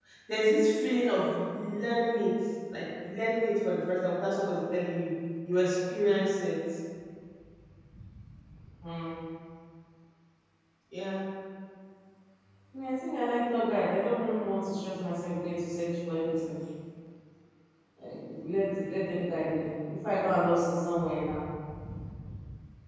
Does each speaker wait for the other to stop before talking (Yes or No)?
Yes